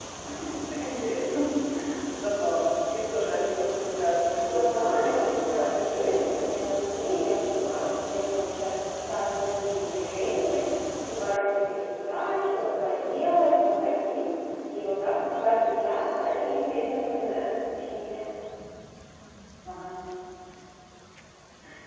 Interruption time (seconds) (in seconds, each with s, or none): 4.5 s